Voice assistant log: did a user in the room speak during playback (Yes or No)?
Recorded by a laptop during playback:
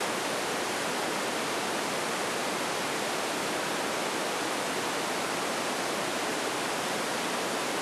No